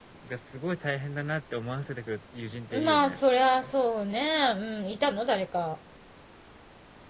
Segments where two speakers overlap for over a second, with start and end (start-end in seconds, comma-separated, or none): none